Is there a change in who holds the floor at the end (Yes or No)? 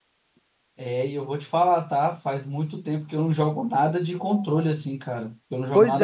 Yes